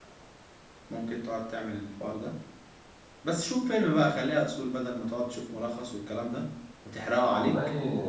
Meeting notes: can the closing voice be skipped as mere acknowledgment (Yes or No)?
No